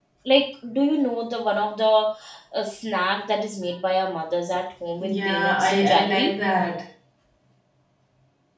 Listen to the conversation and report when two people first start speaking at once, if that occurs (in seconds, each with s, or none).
5.0 s